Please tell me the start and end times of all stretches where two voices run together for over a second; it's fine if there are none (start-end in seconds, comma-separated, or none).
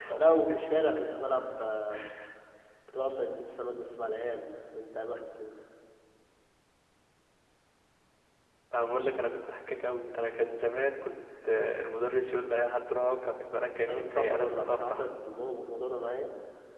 13.9-15.1